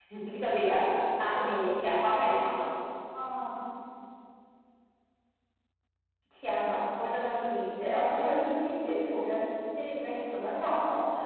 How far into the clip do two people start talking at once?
none

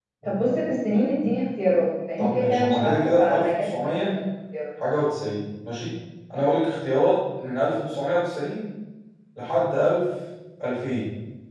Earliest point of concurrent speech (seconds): 2 s

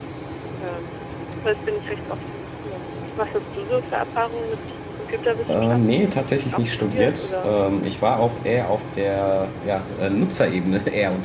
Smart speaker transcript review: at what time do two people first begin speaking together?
5 s

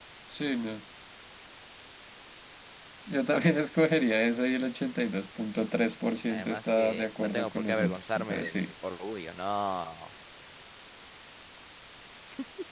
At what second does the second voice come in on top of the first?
6 s

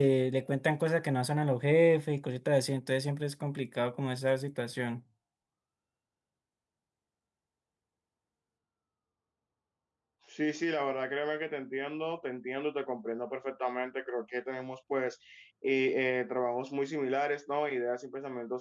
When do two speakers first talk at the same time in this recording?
none

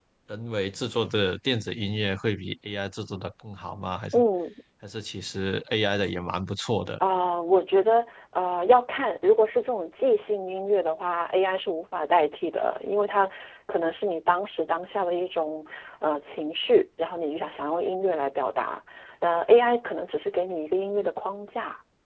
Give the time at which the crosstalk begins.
none

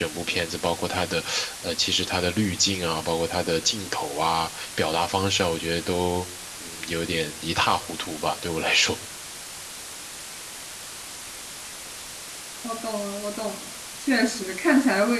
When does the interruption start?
none

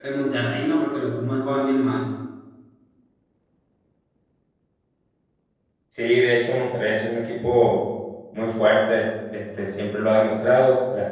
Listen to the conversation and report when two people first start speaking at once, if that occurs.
none

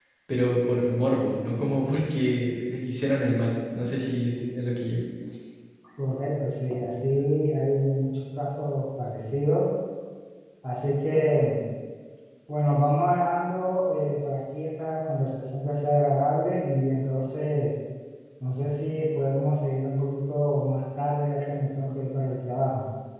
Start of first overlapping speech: none

